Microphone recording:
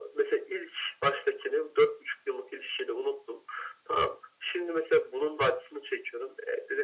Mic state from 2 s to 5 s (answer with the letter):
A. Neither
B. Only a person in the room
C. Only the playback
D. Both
C